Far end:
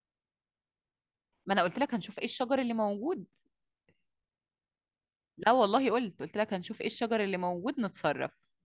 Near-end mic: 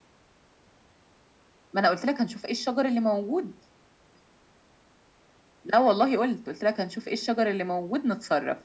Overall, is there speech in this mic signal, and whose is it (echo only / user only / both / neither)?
echo only